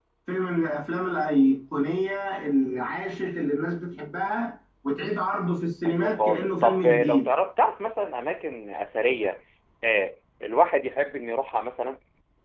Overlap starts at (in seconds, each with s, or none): 5.8 s